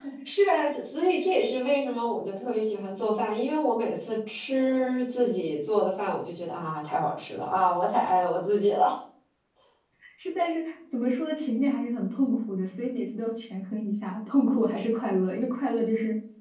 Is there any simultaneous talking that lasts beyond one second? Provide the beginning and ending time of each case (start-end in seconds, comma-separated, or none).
none